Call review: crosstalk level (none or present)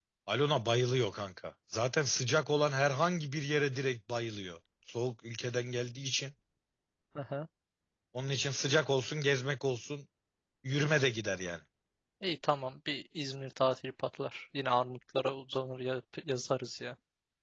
none